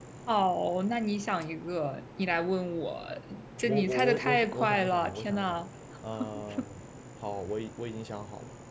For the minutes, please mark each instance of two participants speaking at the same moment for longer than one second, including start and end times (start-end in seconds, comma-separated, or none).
3.6-5.6